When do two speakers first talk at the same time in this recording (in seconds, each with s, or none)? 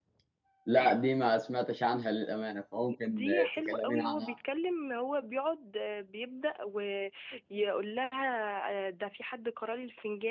3.0 s